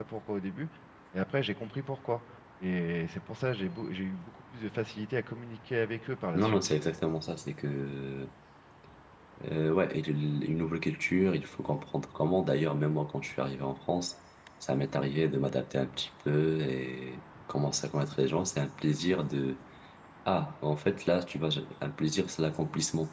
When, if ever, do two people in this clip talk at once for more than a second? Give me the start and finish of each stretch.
none

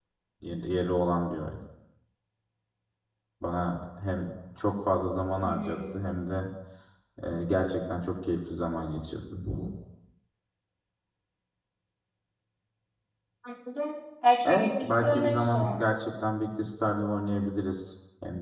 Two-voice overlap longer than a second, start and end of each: 14.4-15.8

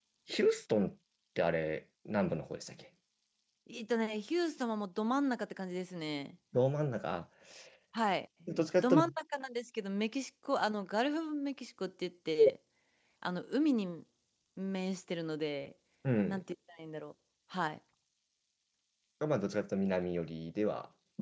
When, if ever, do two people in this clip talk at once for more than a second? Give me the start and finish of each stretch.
none

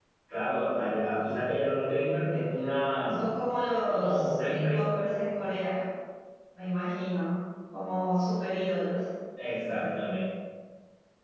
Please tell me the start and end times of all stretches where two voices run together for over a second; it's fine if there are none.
3.7-5.0

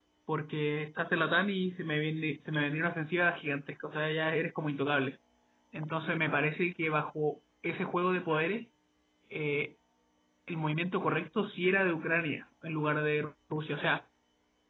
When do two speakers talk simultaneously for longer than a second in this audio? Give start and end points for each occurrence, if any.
none

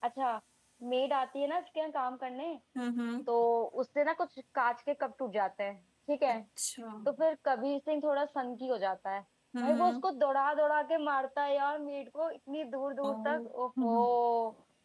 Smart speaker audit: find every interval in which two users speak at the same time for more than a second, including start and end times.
none

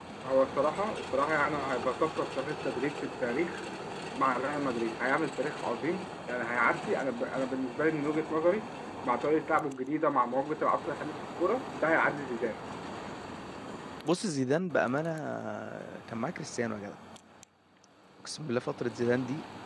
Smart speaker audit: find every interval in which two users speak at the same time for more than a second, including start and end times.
none

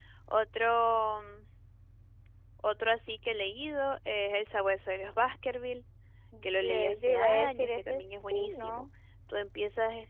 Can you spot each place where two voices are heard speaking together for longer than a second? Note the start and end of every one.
6.6-8.9

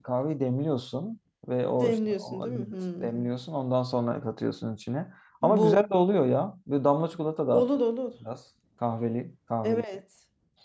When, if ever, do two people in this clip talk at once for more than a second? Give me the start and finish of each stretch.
1.8-3.3

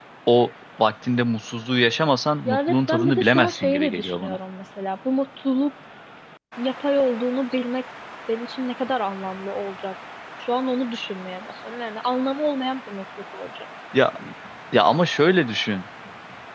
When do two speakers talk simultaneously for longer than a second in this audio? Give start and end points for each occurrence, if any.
2.5-4.4

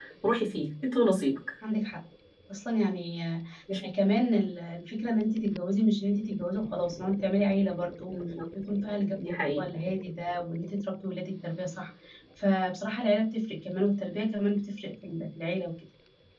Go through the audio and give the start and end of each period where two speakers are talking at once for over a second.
none

